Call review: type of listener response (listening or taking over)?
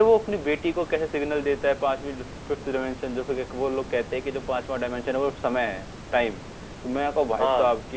listening